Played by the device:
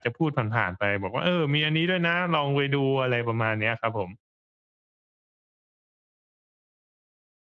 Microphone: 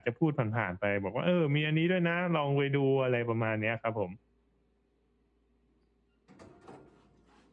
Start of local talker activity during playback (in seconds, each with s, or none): none